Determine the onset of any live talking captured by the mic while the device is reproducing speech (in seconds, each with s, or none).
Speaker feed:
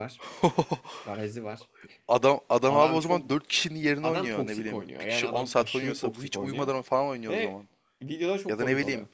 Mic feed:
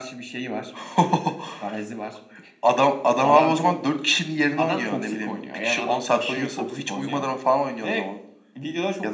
none